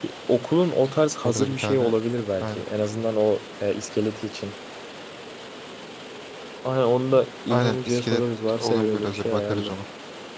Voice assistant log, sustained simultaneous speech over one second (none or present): present